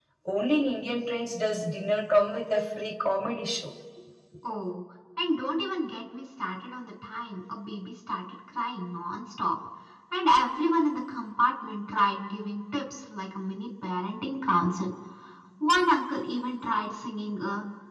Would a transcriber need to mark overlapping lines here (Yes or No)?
No